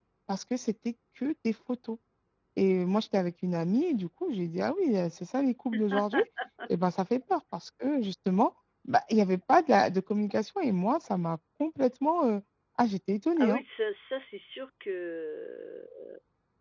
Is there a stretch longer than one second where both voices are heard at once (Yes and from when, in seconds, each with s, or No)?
No